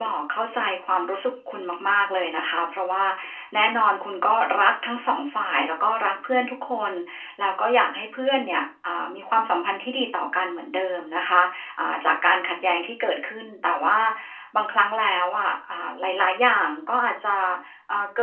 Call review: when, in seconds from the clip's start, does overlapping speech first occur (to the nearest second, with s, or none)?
none